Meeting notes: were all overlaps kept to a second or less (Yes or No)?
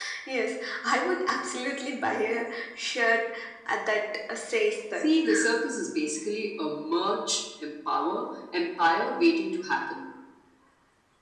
Yes